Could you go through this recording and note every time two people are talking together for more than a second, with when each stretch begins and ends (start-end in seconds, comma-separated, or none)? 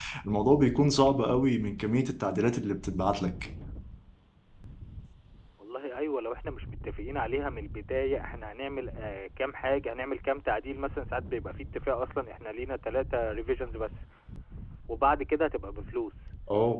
none